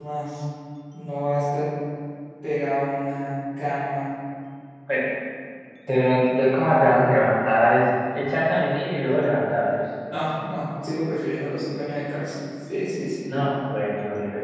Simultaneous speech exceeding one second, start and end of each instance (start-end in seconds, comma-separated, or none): none